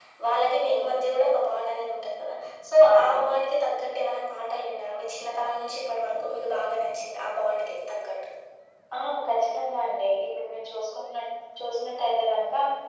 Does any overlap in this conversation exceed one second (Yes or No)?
No